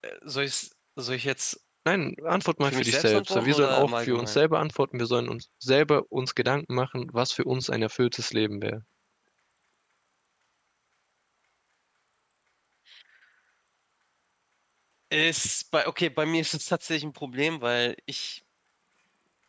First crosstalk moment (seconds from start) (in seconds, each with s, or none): 2.6 s